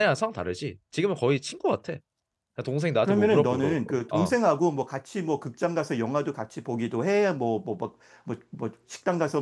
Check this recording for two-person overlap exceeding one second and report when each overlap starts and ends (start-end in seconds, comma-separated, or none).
3.0-4.4